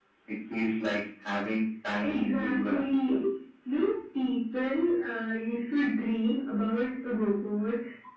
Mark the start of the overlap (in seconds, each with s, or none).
2.0 s